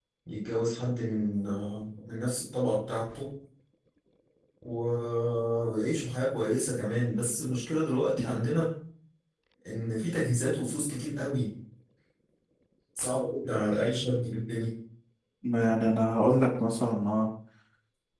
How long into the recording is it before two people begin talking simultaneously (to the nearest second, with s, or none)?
none